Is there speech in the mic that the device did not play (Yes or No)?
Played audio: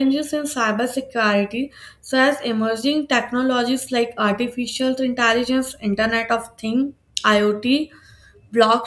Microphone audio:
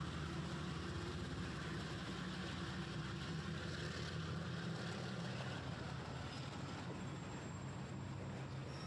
No